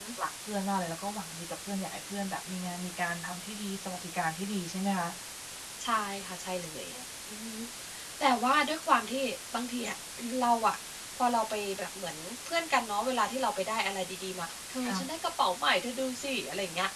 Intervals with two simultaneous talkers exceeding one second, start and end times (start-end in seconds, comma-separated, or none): none